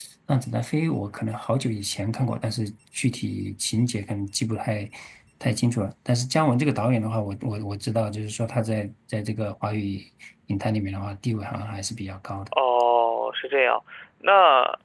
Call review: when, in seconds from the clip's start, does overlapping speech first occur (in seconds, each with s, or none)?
none